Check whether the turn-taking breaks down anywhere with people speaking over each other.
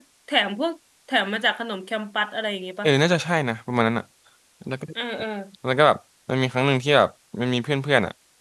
No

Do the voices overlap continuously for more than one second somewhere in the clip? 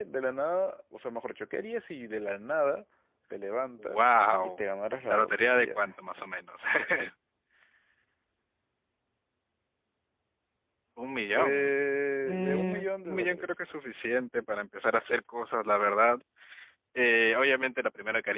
Yes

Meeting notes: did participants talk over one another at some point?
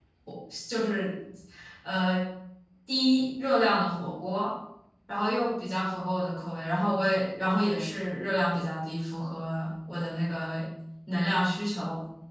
No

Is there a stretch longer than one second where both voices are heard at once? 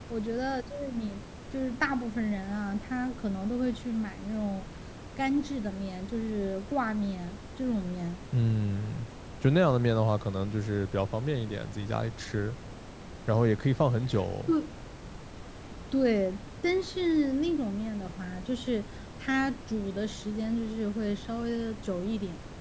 No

